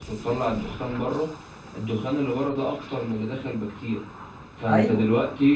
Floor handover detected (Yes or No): No